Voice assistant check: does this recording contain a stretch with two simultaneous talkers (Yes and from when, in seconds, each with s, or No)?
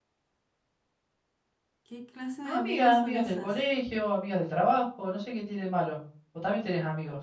Yes, from 2.4 s